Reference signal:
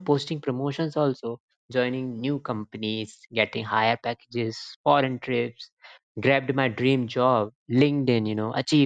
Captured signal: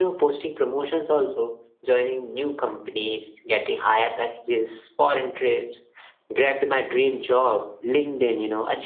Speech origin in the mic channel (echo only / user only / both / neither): echo only